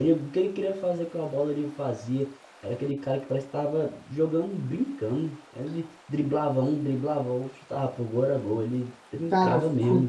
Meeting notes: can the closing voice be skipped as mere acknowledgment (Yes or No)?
No